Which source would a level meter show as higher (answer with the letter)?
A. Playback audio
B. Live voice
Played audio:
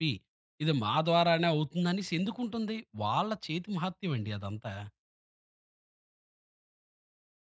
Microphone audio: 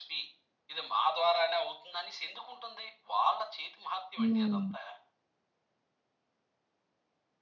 B